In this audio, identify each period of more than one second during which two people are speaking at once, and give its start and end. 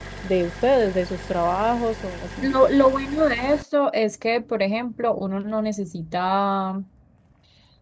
none

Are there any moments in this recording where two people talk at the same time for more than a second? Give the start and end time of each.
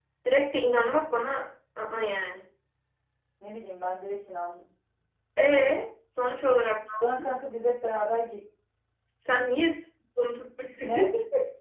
none

